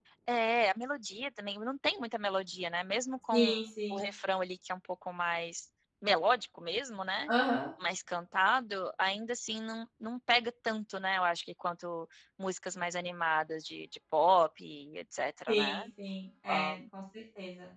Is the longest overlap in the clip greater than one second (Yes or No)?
No